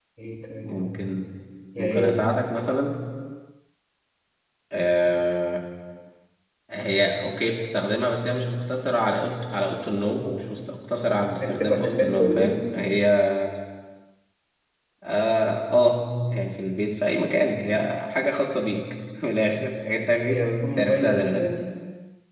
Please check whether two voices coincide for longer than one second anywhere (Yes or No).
Yes